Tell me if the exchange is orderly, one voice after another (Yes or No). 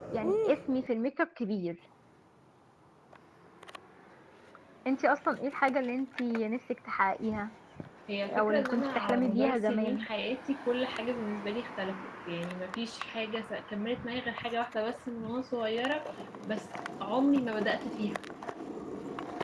No